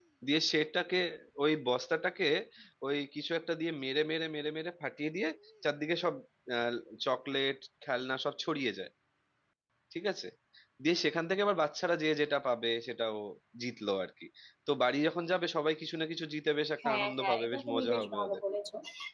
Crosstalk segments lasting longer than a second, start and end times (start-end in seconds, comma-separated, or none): 16.8-18.4